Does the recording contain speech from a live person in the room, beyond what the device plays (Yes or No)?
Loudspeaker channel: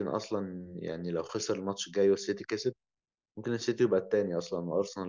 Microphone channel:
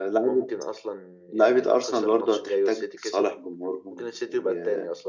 Yes